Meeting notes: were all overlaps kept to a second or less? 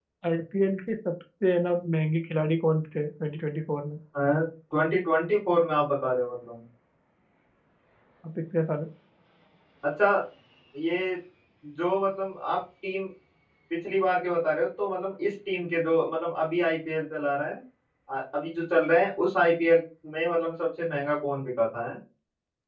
Yes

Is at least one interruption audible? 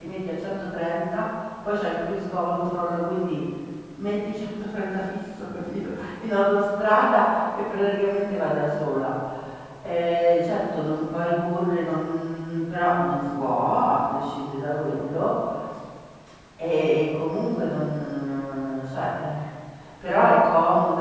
No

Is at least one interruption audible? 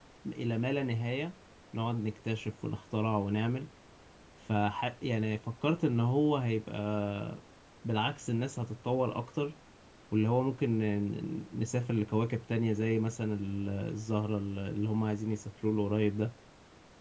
No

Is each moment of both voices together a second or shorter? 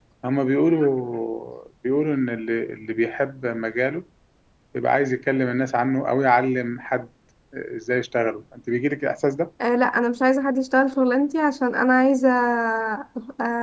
Yes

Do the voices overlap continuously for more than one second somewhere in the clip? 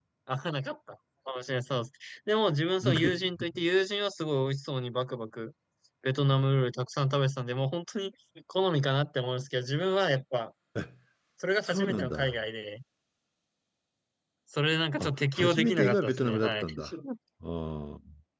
Yes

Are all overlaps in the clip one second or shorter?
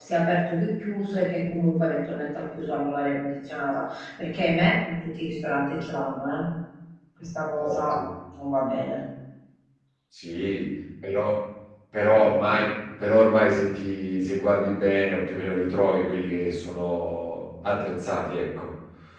Yes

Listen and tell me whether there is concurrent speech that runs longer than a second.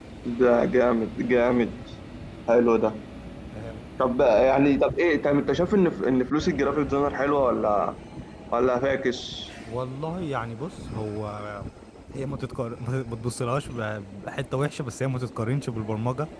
No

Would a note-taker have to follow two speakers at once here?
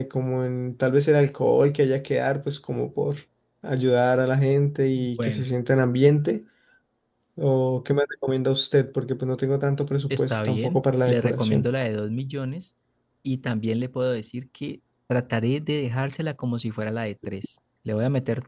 Yes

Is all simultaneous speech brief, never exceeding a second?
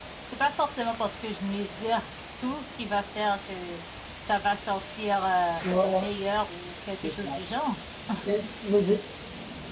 Yes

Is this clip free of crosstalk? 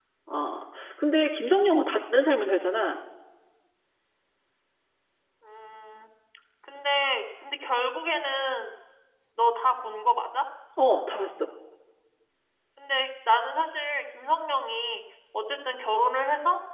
Yes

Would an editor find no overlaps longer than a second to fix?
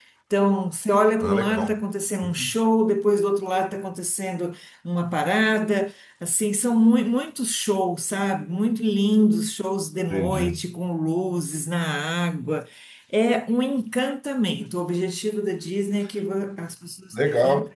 Yes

